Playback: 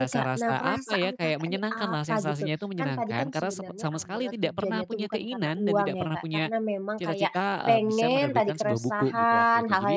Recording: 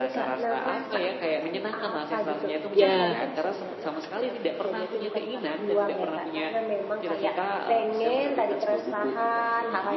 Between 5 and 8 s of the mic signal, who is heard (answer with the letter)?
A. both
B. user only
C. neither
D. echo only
D